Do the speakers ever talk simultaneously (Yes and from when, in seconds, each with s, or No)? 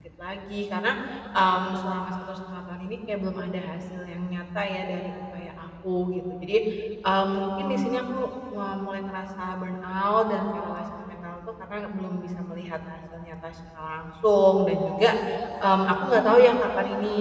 No